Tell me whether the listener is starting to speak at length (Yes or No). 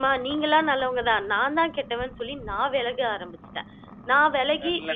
No